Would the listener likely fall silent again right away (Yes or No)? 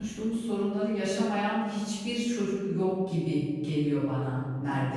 No